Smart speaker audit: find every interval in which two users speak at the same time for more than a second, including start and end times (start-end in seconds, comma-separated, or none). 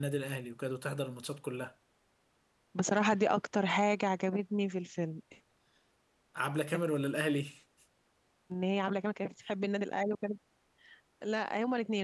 none